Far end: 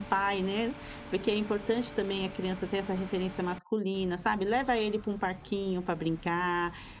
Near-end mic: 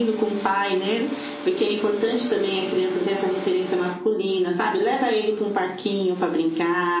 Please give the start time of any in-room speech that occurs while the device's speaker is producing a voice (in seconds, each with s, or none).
none